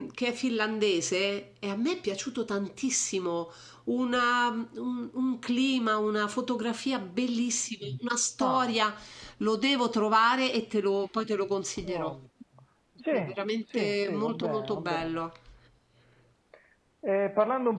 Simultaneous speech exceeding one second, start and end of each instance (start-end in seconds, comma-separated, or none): 13.8-15.2